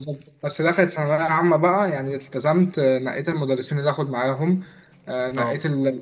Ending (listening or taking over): listening